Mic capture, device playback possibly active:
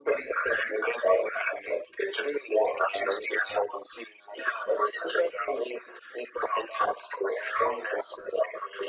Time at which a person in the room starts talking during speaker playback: none

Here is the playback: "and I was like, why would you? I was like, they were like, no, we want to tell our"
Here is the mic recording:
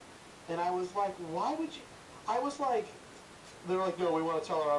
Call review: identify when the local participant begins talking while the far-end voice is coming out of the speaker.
none

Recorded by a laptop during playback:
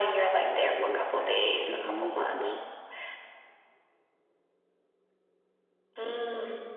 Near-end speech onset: 0.3 s

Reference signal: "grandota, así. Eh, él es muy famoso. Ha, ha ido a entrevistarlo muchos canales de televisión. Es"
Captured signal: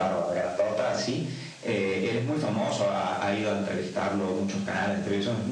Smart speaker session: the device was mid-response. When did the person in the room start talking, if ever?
none

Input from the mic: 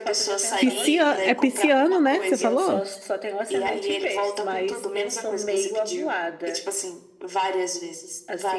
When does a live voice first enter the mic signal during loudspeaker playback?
0.6 s

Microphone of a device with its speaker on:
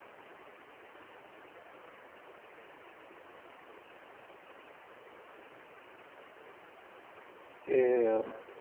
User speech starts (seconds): 7.7 s

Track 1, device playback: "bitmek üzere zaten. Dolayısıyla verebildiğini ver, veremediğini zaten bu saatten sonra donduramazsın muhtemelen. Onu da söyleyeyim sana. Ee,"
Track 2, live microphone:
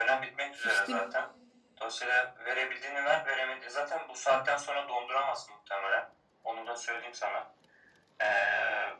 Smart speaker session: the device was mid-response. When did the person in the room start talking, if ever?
0.5 s

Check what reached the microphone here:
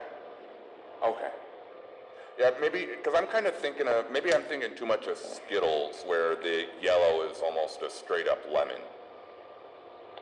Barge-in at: none

